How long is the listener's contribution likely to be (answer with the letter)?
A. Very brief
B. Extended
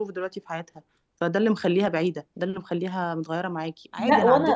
B